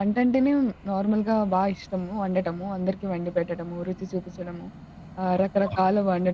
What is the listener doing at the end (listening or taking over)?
listening